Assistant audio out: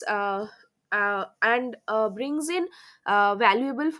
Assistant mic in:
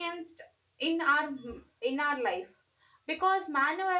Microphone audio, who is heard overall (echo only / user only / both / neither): user only